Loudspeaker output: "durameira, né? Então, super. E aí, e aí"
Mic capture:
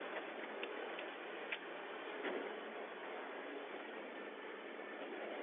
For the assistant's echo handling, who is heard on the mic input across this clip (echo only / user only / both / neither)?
neither